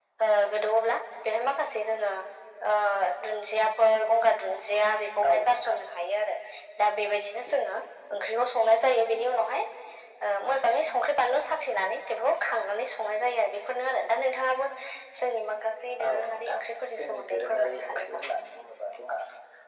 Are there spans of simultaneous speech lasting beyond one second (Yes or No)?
Yes